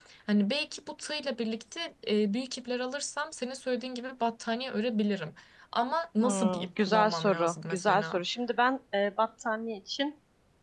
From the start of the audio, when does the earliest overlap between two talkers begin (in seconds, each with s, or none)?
6.2 s